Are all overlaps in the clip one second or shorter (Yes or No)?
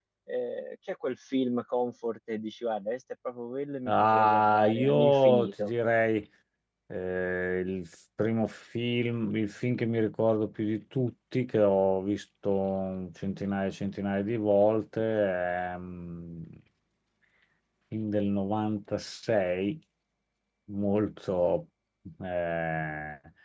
No